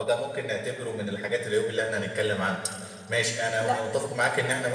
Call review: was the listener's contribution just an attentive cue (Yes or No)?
Yes